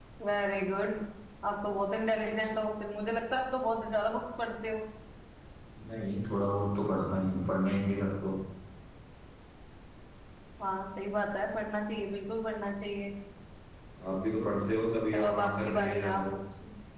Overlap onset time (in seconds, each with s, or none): 15.1 s